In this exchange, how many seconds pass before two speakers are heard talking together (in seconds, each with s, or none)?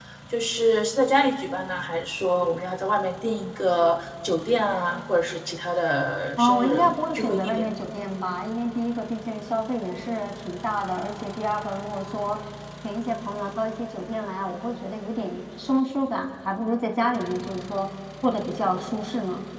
6.4 s